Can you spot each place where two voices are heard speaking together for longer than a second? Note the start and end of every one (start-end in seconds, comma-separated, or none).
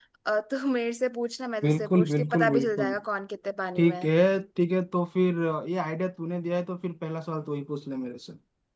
1.6-2.9